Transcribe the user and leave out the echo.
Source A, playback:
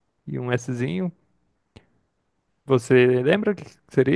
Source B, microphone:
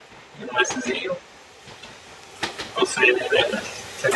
none

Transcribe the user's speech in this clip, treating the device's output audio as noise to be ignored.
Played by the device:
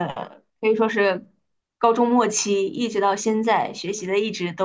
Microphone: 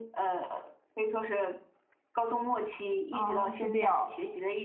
啊，是这样。

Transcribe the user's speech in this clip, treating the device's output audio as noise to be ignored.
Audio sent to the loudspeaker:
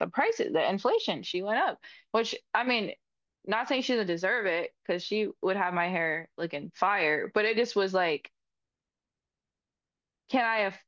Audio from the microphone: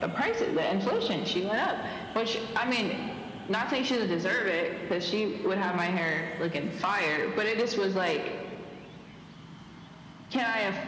none

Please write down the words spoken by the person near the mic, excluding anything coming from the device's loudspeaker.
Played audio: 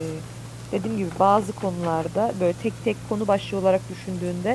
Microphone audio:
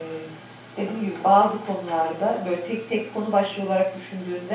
none

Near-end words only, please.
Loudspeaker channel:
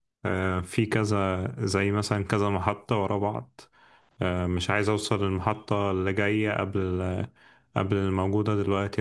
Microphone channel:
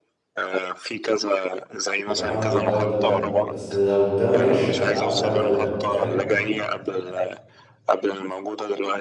يبقى هعمل ده وده وده بس لو ده ما جاش انا هعمل ده وده وده فاهم

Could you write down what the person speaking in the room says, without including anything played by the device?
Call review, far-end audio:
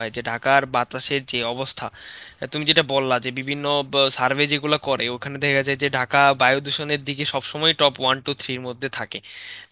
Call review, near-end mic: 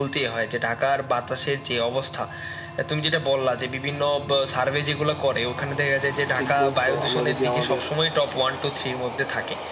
ঠিক বলছো আমরা যদি আমাদের

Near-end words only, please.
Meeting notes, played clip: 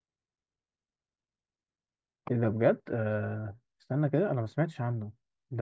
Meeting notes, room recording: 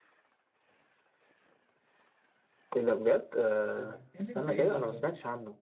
ده بيتكلم في ايه ده صح

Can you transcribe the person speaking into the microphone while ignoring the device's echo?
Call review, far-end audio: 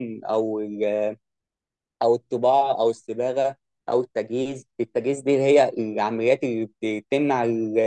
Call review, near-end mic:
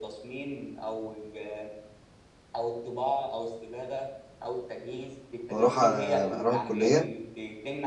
وأروح أ- أروح الكلية

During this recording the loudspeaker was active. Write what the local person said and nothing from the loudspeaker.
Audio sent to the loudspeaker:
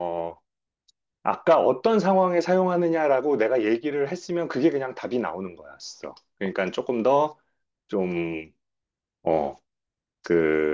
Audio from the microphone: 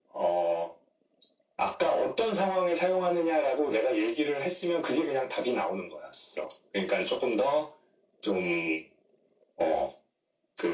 none

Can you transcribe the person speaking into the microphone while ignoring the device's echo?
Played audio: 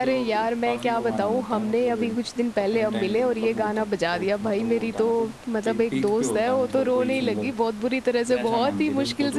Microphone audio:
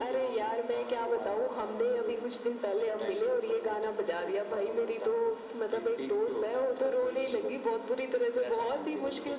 none

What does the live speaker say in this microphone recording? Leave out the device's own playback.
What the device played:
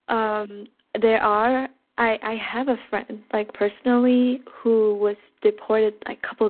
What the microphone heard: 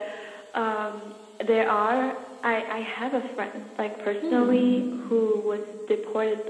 Hmm.

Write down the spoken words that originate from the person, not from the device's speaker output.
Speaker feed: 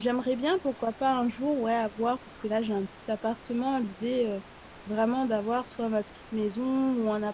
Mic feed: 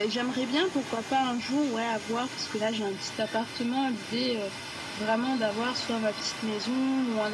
none

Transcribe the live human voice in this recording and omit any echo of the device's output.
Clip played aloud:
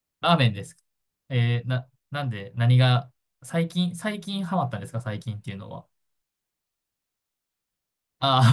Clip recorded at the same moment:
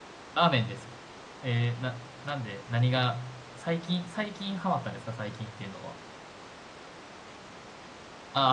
none

